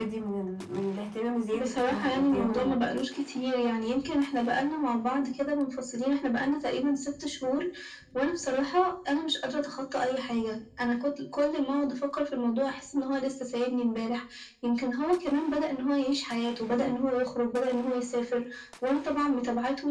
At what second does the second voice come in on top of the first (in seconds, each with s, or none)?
1.5 s